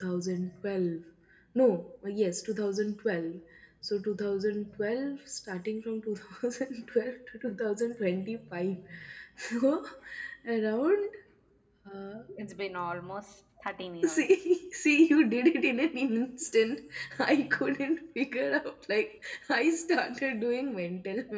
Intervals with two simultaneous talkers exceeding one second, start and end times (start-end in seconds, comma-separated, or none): none